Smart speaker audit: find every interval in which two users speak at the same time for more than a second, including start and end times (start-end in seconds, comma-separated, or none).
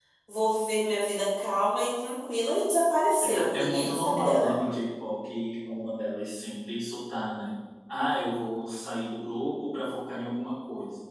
3.2-4.5